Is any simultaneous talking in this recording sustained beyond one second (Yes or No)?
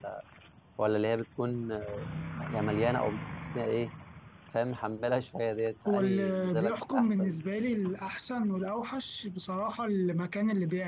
Yes